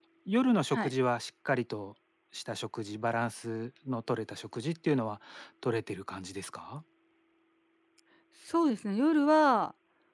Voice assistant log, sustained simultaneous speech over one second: none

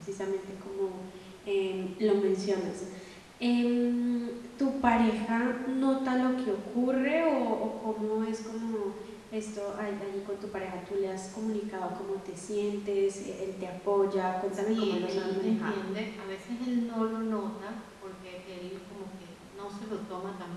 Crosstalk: present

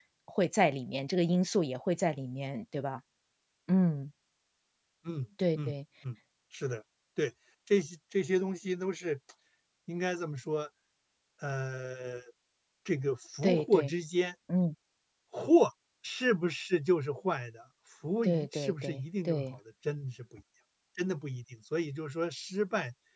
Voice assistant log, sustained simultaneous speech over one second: present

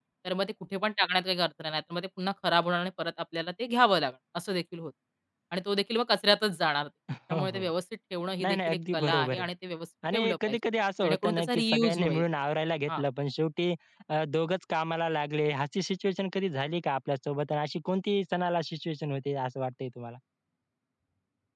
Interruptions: present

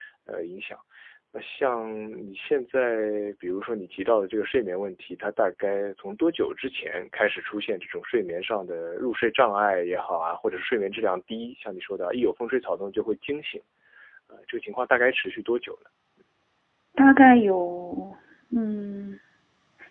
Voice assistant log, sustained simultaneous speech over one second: none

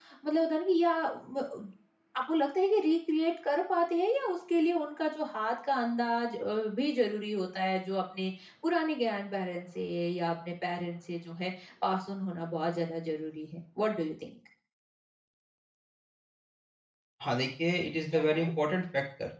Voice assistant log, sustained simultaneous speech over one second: none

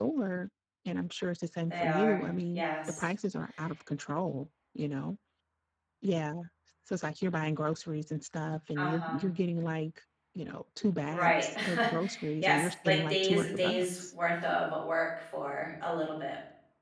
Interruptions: present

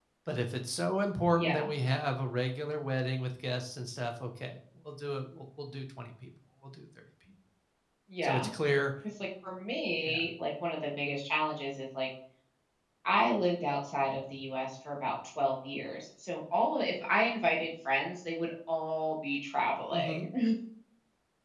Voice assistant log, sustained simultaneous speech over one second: none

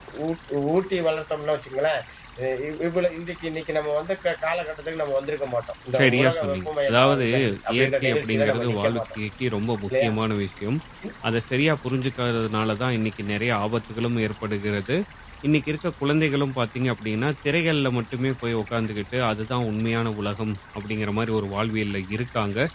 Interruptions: present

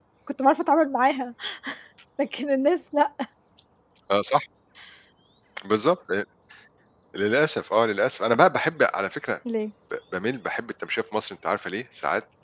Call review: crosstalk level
none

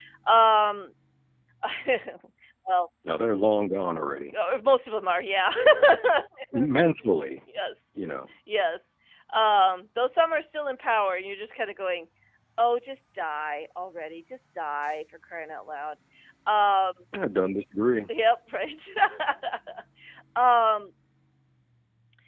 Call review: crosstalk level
none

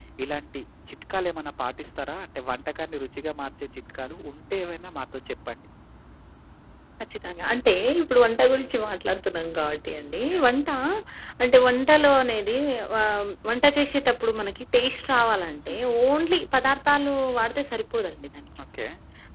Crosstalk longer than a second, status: none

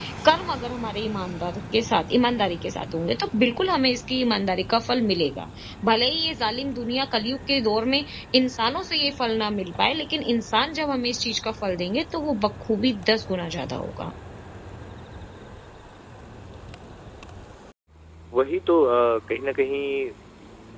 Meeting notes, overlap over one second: none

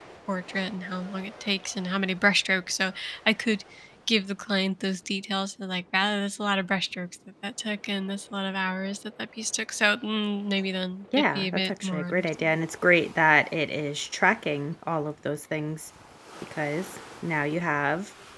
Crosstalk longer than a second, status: present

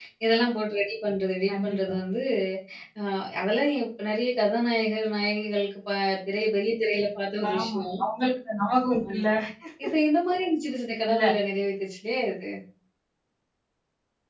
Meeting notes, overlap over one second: none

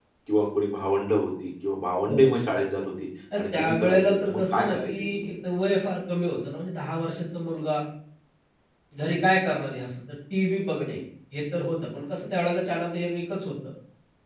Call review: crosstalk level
present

